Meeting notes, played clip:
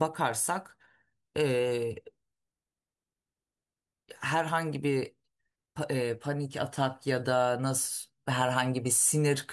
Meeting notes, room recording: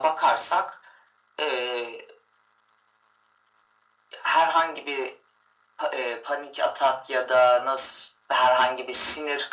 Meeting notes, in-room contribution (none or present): none